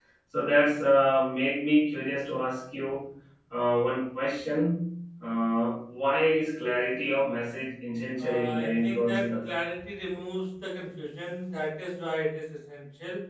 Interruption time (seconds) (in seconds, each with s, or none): 8.2 s